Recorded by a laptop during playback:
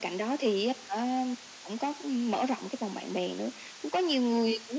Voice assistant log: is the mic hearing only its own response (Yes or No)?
Yes